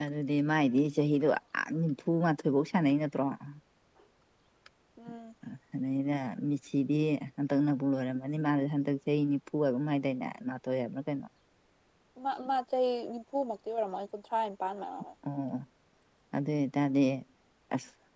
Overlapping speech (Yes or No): No